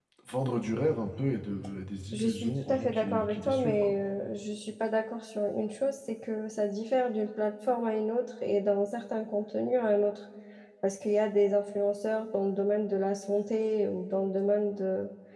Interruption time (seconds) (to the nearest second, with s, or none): 2 s